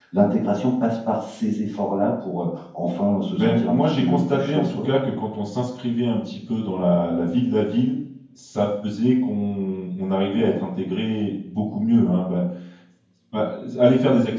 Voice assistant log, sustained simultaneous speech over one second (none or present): present